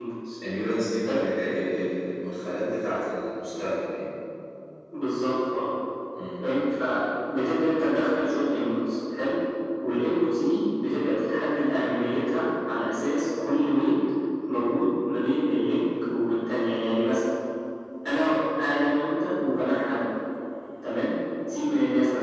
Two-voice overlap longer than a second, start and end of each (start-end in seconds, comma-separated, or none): none